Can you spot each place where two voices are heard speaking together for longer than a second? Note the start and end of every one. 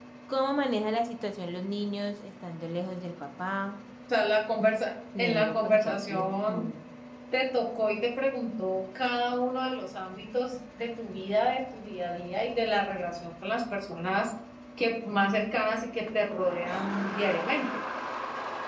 5.2-6.7

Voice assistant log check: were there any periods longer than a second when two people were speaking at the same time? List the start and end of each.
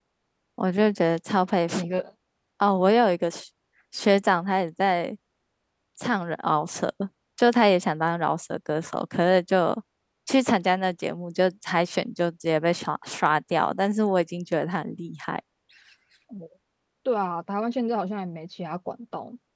none

